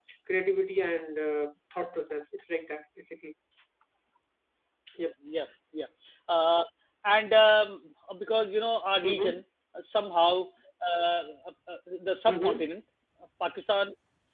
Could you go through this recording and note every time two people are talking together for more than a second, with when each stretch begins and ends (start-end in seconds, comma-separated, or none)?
none